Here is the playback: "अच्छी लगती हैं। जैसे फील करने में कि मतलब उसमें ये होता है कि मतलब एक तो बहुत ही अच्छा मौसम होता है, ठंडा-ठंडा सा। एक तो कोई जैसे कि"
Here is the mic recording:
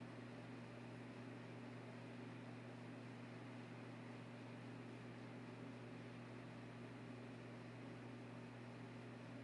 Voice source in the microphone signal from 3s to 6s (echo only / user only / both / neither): neither